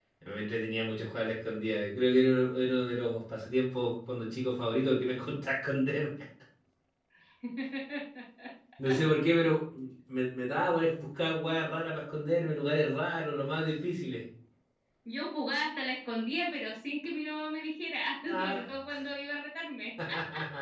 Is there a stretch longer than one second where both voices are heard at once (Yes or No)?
No